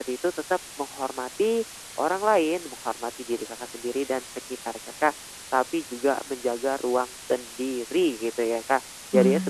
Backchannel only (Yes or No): Yes